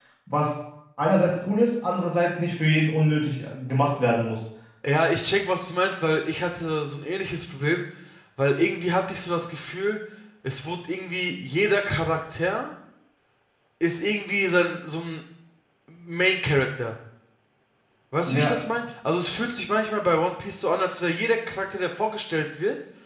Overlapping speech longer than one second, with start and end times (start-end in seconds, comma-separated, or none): none